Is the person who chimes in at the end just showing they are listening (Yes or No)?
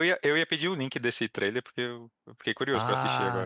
No